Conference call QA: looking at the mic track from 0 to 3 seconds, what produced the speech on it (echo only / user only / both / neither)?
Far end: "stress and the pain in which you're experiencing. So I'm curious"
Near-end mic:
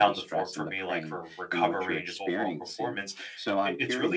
both